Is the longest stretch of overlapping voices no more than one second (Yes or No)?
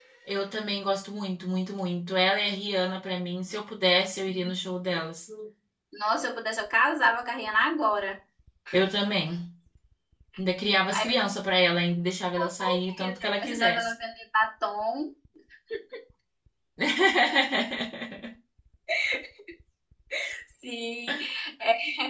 No